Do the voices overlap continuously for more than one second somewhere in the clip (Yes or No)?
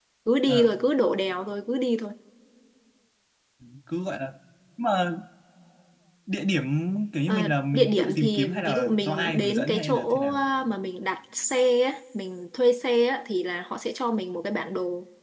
Yes